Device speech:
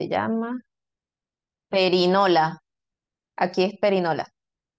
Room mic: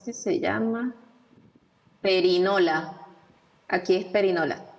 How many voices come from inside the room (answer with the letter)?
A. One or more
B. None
B